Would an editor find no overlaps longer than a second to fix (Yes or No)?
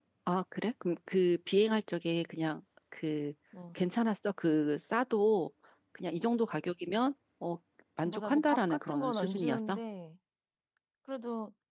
No